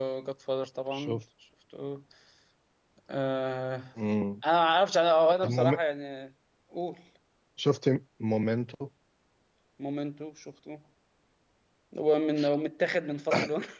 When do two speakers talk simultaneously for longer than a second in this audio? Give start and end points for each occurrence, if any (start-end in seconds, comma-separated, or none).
none